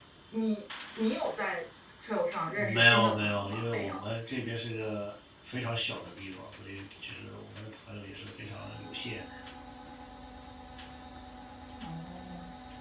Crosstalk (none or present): present